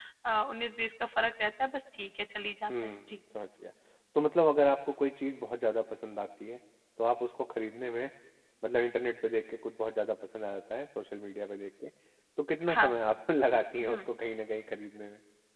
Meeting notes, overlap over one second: none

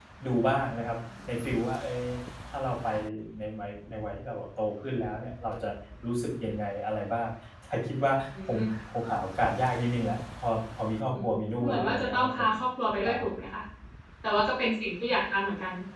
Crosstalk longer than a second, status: present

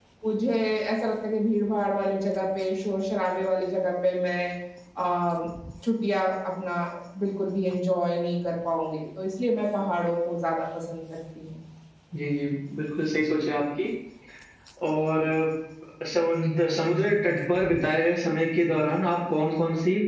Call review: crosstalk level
none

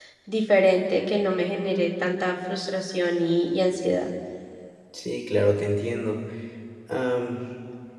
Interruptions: none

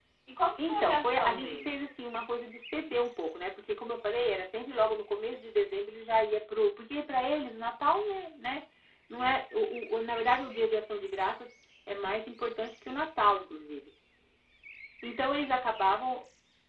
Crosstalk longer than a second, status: present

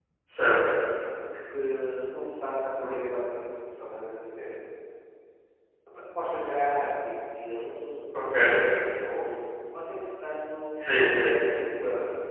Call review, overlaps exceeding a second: none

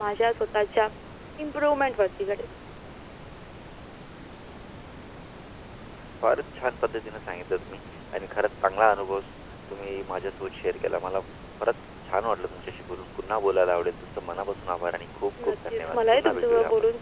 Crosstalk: present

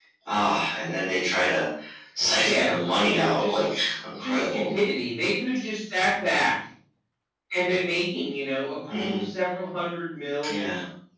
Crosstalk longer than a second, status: present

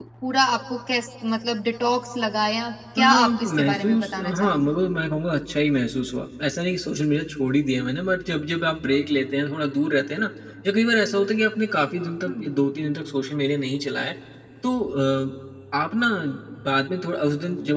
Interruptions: present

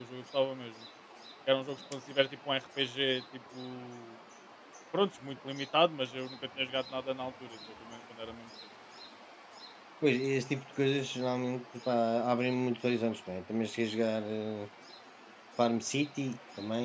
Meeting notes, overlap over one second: none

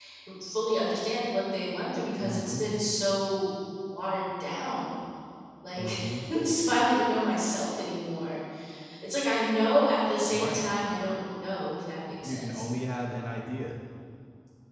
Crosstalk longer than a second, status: none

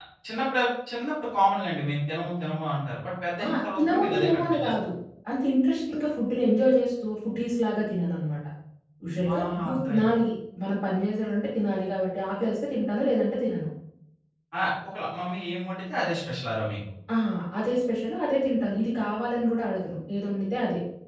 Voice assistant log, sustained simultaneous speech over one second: present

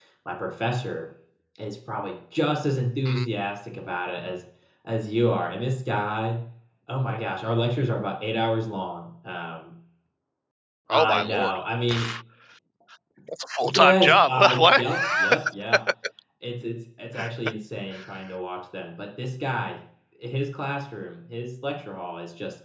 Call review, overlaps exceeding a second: present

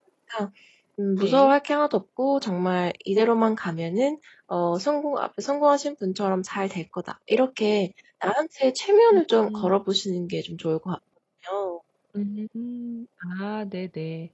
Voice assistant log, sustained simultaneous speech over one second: none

